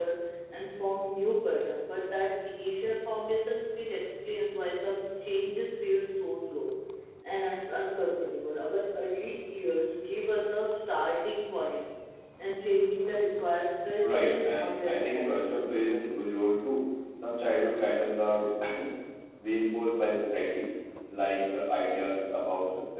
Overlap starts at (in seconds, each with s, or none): 14.0 s